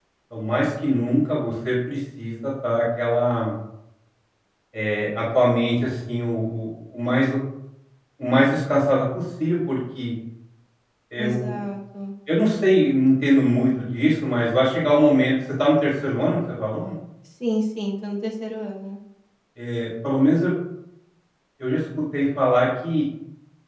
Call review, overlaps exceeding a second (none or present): none